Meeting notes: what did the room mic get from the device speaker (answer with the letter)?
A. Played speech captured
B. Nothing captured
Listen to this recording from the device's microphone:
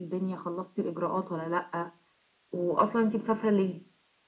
A